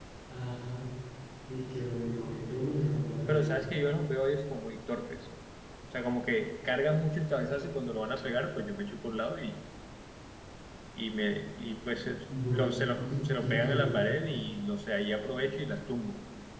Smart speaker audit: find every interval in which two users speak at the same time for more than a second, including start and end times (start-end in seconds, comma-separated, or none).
12.2-14.0